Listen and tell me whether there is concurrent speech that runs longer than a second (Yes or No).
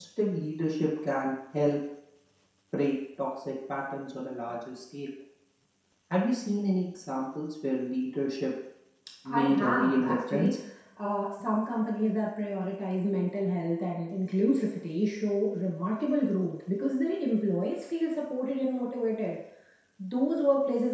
Yes